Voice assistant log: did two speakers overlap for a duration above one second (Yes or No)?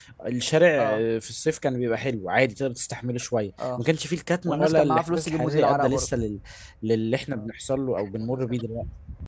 Yes